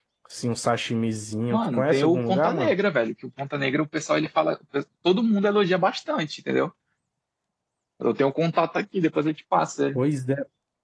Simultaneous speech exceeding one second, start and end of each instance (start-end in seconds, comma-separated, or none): 1.5-2.7